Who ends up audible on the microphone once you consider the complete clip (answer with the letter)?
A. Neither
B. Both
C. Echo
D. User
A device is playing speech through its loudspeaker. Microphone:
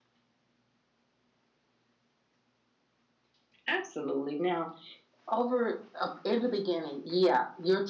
D